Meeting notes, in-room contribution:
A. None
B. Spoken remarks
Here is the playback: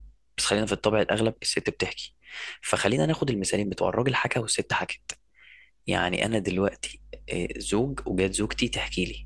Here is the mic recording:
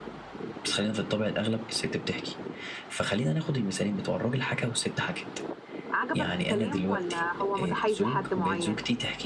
B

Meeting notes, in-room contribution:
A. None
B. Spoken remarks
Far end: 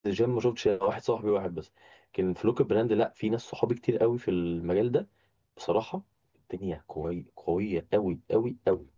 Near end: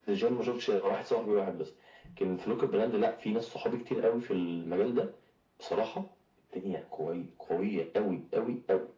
A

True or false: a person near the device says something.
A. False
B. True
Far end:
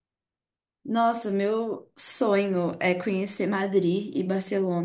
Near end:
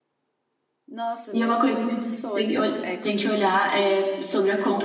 B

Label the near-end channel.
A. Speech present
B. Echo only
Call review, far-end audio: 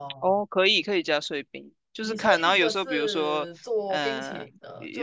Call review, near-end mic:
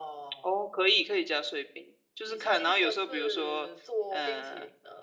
B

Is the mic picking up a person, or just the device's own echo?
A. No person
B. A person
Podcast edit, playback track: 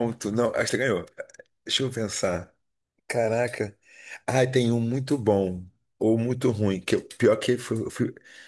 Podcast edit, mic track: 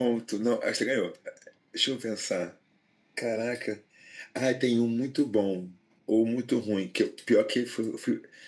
A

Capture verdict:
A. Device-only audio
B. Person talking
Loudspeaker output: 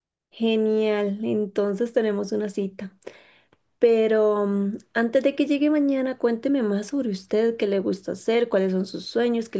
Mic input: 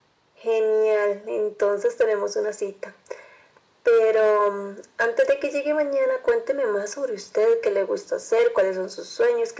A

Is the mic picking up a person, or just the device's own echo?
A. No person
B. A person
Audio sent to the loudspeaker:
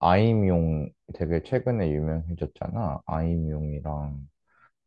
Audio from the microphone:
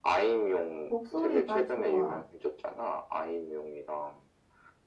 B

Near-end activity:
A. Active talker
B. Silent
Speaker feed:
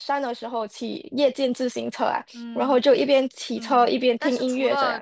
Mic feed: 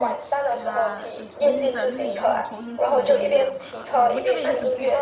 A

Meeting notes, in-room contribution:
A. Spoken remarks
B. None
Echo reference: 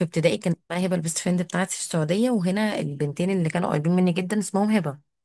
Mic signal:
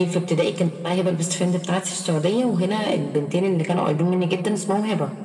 B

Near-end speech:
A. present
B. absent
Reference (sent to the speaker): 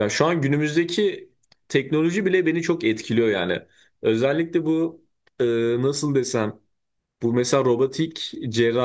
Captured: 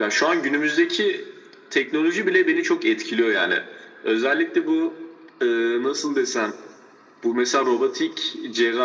B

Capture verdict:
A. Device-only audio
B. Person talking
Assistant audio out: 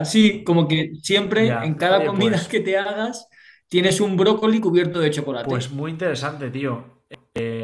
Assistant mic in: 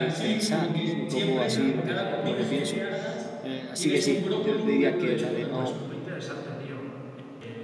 B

